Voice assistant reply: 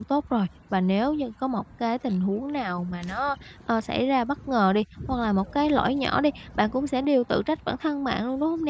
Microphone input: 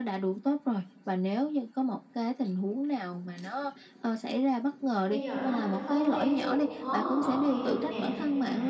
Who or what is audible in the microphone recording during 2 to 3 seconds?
echo only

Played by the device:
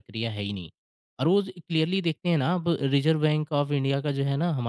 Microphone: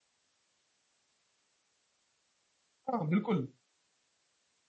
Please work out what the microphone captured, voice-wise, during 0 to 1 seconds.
neither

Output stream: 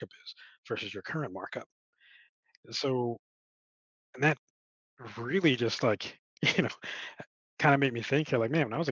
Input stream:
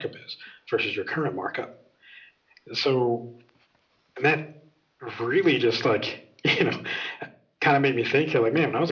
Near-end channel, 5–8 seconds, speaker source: echo only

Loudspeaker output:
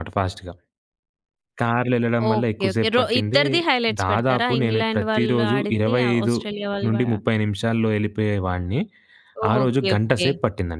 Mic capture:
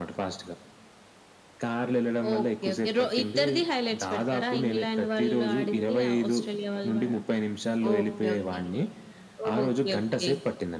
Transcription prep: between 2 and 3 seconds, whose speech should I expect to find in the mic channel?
echo only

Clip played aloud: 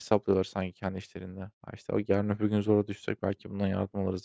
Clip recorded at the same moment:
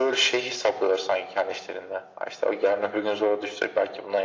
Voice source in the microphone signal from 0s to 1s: echo only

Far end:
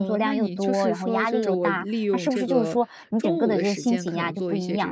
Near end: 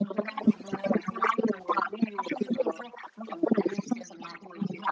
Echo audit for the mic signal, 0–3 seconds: echo only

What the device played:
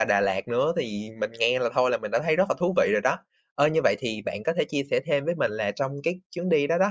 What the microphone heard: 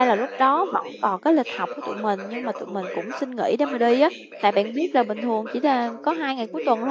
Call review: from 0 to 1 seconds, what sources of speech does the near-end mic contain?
both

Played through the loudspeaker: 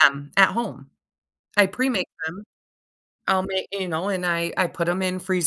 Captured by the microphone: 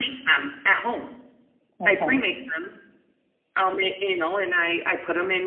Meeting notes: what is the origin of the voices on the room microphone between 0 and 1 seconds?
echo only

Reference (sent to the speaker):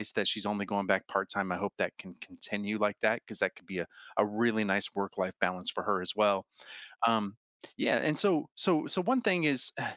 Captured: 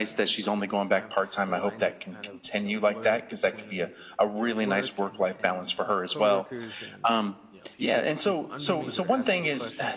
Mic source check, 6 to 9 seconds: both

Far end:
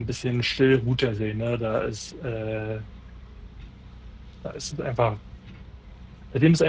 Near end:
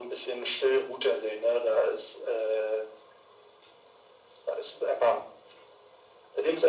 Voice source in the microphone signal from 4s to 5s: echo only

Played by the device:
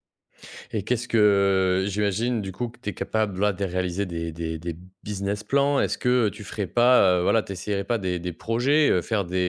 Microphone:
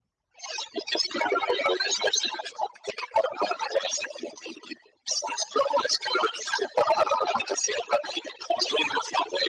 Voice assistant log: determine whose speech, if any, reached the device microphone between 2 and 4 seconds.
echo only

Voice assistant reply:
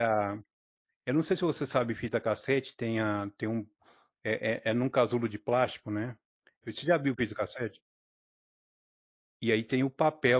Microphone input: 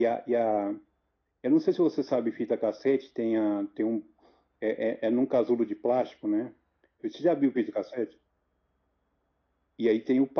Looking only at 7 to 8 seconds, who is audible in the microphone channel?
echo only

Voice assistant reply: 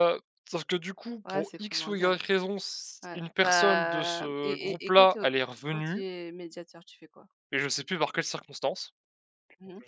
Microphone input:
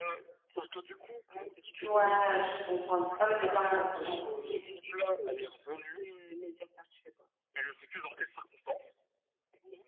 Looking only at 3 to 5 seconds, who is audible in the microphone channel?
both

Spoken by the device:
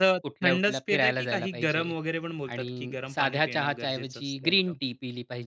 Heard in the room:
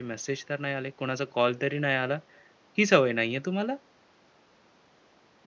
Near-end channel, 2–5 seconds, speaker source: user only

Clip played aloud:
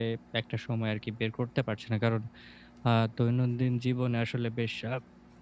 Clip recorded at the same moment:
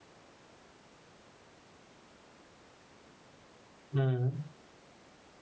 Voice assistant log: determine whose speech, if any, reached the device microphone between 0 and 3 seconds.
neither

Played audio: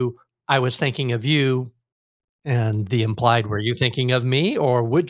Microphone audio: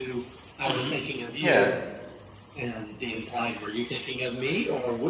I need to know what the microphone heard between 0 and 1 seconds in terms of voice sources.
both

